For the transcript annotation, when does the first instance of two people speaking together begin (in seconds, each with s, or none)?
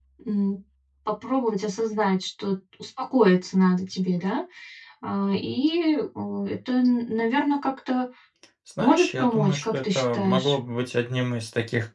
8.8 s